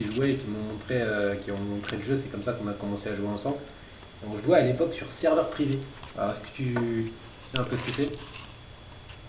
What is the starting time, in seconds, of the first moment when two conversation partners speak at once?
none

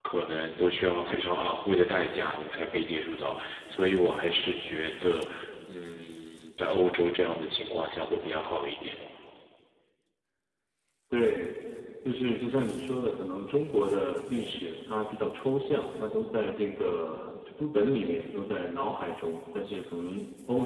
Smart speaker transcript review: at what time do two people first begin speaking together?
none

